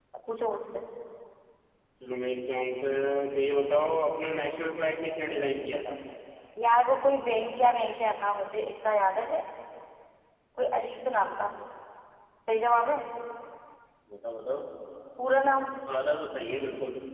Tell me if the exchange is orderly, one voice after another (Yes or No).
Yes